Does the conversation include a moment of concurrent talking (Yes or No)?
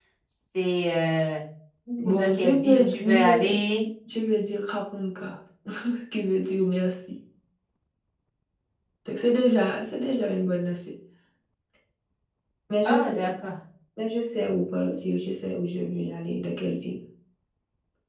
Yes